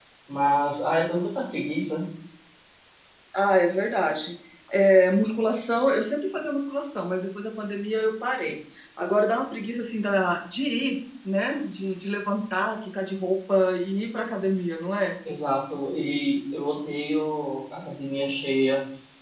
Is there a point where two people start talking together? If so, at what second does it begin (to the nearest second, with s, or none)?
none